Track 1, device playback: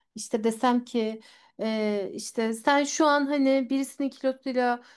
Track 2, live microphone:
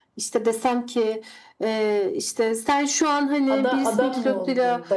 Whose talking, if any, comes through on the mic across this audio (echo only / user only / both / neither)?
both